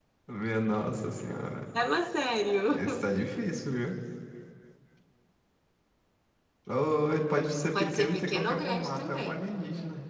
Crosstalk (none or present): present